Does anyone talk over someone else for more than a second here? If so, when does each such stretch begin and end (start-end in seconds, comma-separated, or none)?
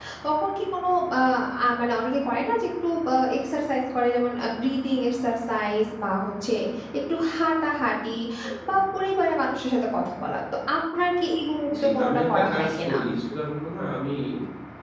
11.8-12.9